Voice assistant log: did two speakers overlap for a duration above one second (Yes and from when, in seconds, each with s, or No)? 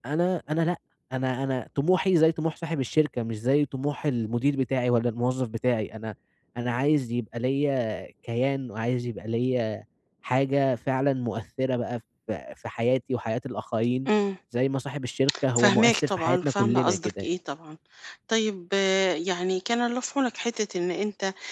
Yes, from 15.6 s